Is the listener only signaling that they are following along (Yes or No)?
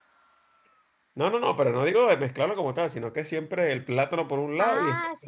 No